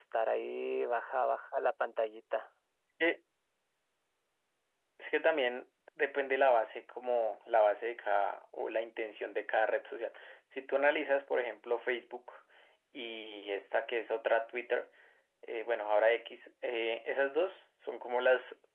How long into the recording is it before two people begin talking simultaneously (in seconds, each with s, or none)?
none